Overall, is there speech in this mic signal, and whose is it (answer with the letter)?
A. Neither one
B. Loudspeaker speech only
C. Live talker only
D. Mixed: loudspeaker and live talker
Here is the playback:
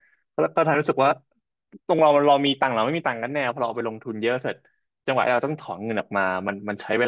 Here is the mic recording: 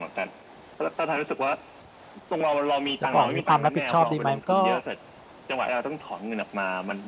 D